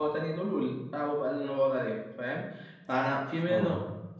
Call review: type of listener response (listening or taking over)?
listening